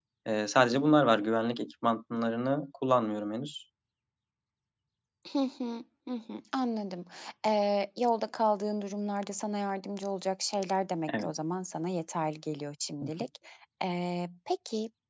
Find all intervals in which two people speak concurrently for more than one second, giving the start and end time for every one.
none

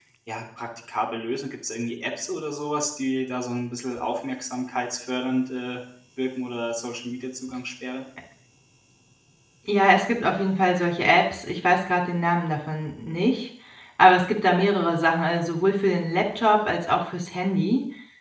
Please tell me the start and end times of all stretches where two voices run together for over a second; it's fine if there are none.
none

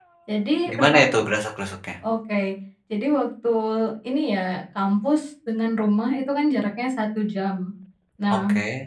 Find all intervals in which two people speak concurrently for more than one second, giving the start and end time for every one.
none

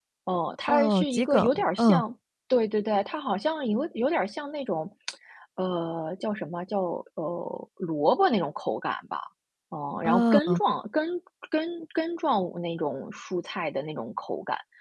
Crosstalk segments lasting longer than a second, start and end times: 0.7-2.0

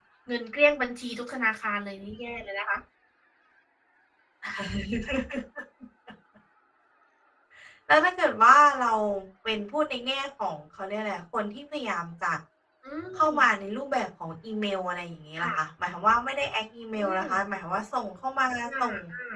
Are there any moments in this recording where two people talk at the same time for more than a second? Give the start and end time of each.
none

